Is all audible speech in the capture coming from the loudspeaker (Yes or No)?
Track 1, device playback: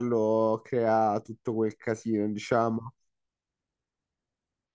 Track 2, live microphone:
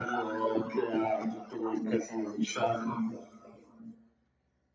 Yes